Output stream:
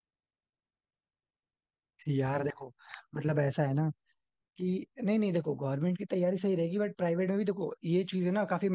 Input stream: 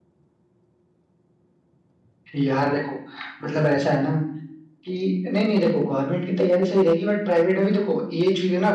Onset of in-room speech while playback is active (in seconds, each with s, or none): none